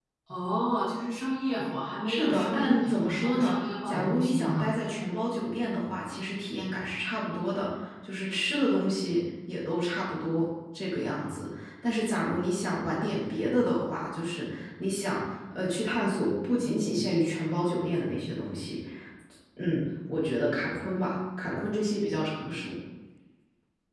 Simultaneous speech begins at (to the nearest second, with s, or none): 2 s